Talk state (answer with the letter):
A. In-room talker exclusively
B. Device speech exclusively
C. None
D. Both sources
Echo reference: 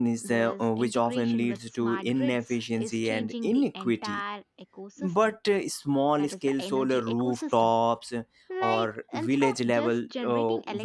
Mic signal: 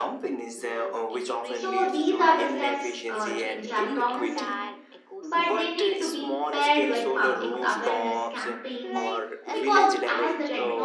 D